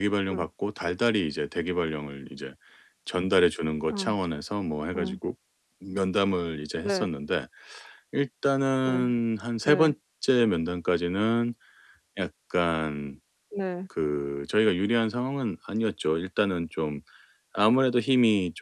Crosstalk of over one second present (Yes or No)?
No